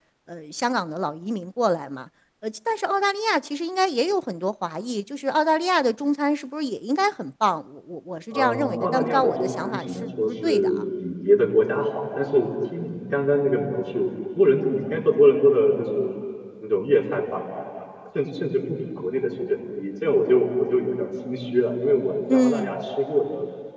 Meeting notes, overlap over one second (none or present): present